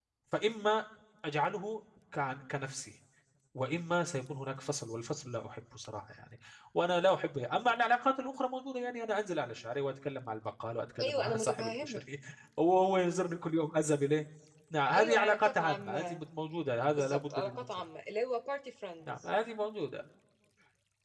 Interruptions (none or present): present